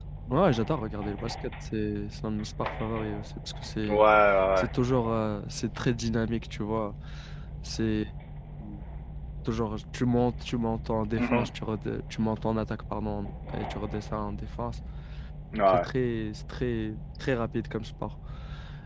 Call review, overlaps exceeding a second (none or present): none